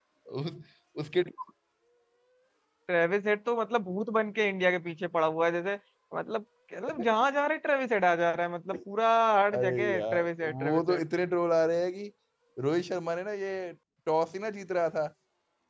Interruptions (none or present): present